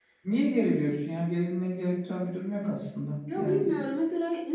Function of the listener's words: taking over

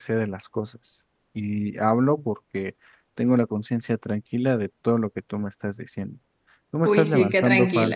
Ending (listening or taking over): taking over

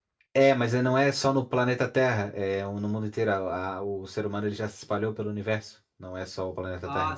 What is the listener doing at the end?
taking over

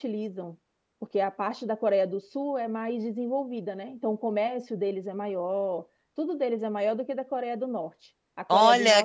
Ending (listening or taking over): taking over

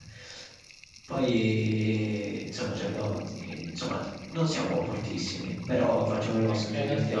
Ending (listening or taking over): taking over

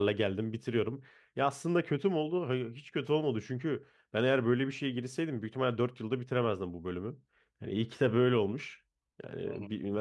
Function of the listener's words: listening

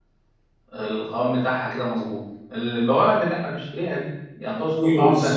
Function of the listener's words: taking over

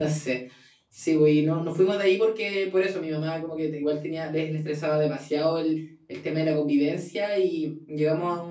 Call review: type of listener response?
listening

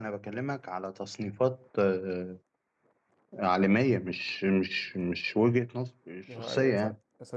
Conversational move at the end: taking over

